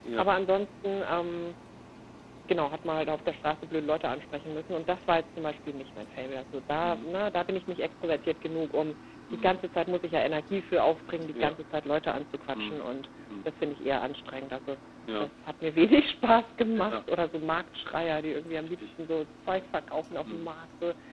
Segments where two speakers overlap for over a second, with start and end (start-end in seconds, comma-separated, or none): none